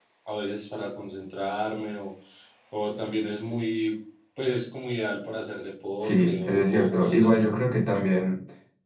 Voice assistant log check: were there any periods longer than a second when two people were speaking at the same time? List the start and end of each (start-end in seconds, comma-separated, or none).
6.0-7.4